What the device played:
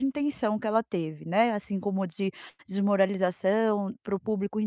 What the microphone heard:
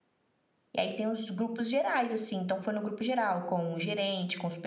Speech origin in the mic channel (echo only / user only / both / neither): user only